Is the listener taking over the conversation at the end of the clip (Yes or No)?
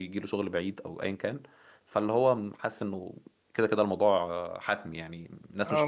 Yes